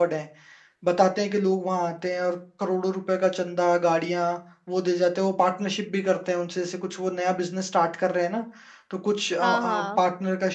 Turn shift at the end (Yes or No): No